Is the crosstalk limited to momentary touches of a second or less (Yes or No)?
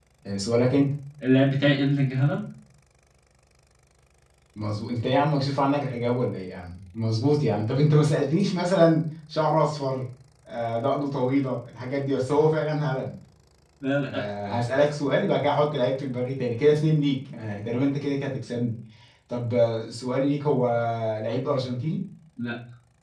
Yes